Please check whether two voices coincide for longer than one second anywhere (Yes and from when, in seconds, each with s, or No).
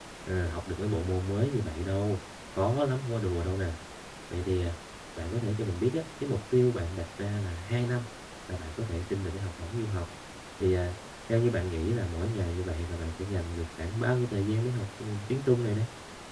No